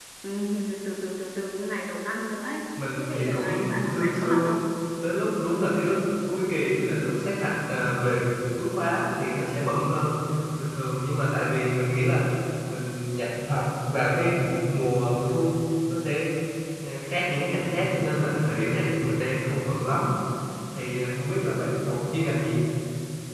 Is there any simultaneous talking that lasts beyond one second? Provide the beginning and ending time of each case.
3.0-4.6

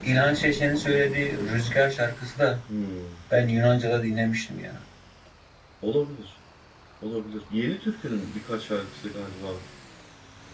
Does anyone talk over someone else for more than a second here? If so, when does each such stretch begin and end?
none

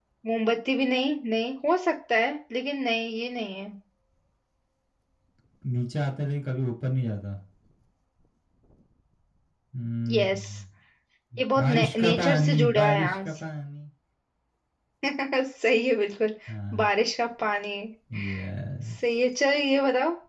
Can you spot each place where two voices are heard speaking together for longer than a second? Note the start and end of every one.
11.6-13.3

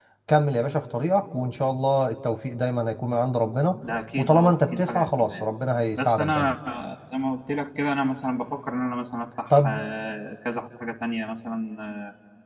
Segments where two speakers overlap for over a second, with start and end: 4.2-5.4

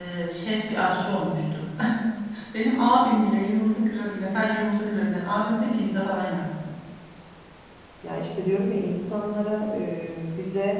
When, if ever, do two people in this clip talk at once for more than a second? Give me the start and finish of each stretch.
none

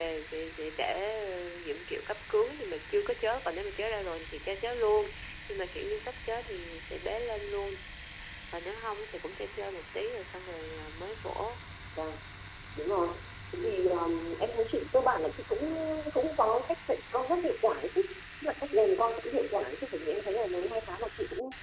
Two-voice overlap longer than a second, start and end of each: none

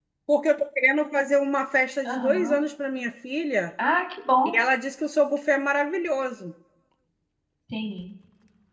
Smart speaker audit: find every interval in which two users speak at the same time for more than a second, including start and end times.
none

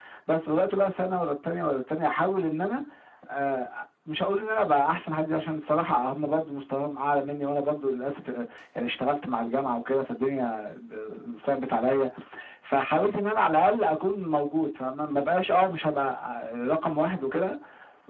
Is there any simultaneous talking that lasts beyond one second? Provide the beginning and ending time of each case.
none

